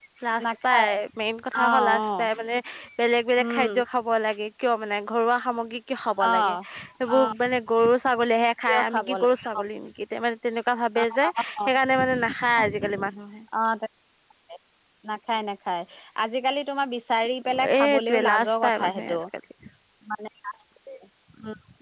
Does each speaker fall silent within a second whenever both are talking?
No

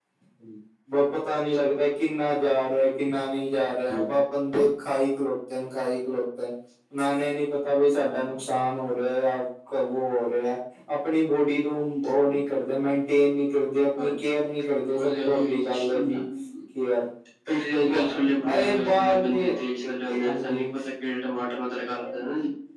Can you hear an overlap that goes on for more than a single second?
Yes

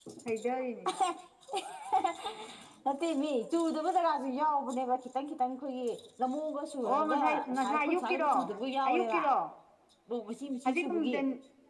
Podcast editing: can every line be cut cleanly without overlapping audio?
No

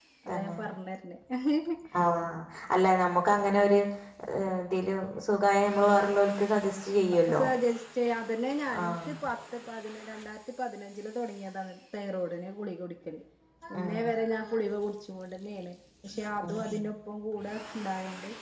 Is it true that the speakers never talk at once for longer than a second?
Yes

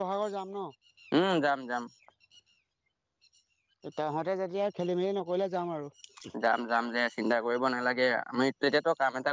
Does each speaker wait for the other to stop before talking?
Yes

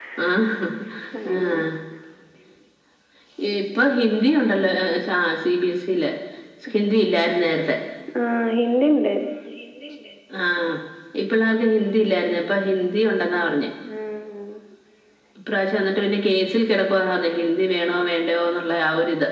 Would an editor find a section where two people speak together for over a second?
No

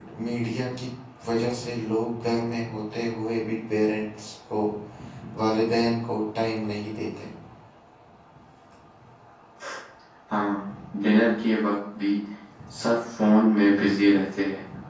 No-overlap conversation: Yes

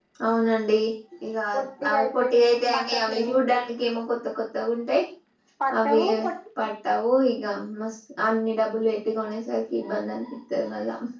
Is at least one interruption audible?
Yes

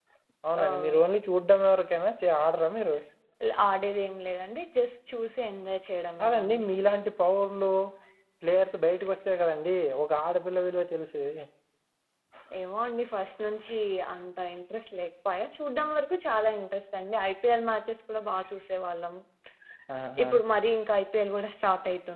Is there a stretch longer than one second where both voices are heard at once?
No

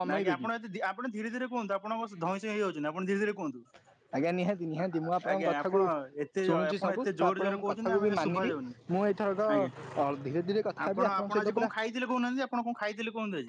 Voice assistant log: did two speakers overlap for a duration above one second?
Yes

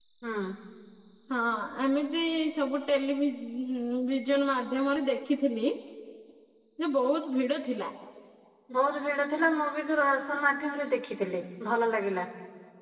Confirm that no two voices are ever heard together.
Yes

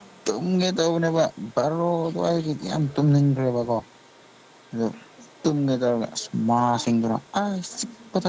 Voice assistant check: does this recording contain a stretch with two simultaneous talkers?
No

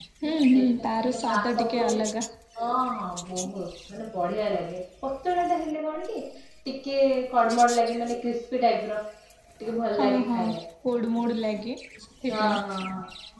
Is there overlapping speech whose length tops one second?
Yes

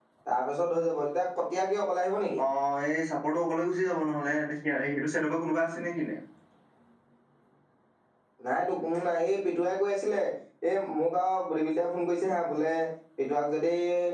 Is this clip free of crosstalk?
Yes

